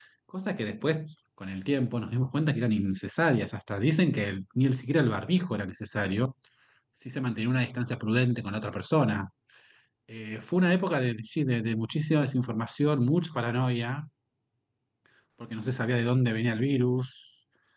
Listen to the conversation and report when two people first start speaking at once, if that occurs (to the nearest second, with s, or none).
none